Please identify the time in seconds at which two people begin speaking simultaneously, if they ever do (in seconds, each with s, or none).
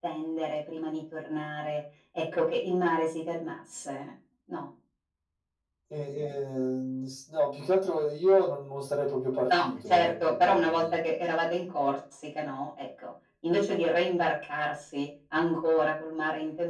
9.5 s